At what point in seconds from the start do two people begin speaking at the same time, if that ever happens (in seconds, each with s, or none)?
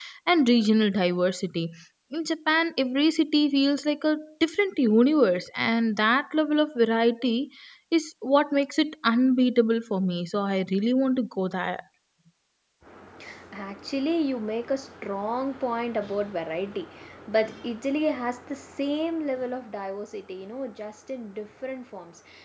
none